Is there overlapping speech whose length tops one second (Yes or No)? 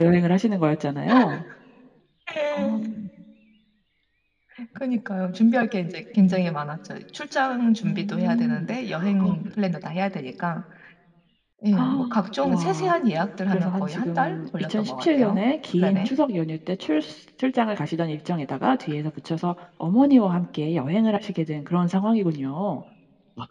Yes